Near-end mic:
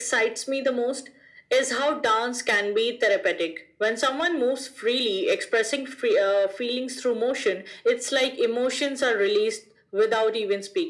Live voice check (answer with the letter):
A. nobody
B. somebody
A